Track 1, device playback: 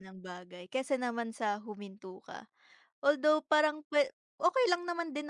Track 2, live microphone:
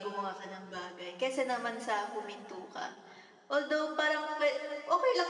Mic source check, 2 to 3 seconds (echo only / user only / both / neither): echo only